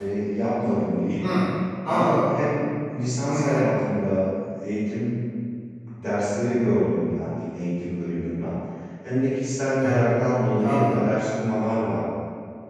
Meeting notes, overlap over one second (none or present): none